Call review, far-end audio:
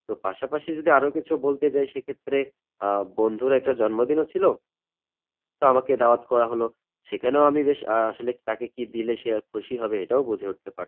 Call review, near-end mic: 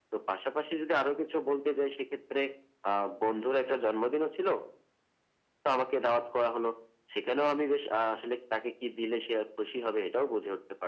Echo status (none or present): present